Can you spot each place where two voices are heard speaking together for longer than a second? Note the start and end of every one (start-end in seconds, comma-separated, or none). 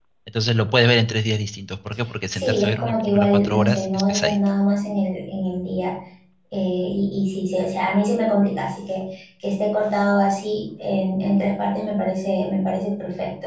2.3-4.4